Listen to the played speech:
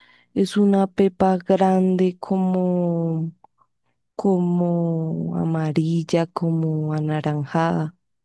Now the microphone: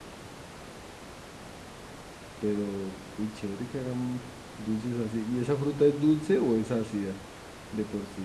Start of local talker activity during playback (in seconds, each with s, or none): 2.4 s